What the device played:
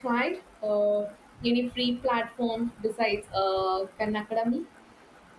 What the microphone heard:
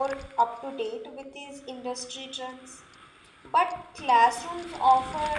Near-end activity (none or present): present